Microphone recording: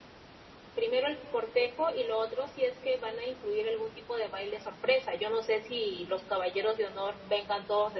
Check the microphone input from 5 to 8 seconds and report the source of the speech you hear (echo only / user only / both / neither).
user only